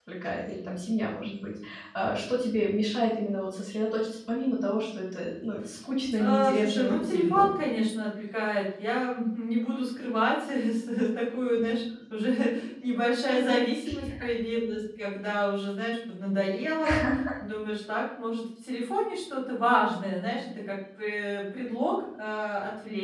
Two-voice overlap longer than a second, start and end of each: 6.2-7.5

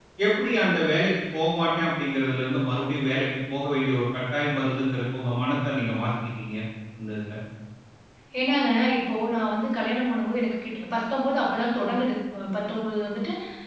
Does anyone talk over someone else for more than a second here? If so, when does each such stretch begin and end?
none

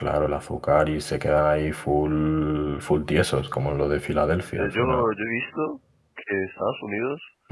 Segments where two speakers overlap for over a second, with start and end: none

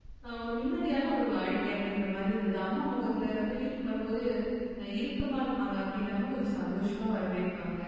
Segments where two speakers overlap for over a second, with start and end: none

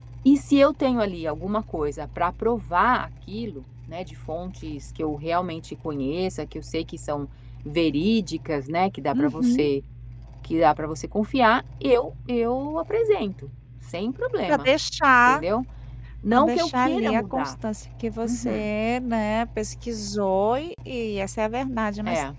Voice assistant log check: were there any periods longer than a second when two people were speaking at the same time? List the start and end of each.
16.3-17.5

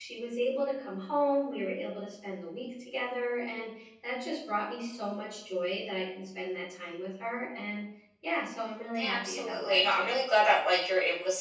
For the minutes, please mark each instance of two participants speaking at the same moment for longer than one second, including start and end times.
9.0-10.2

